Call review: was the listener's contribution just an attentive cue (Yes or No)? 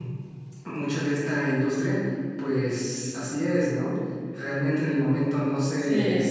Yes